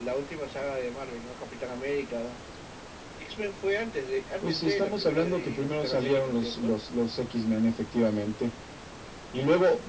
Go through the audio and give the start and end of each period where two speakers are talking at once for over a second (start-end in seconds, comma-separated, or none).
4.4-6.7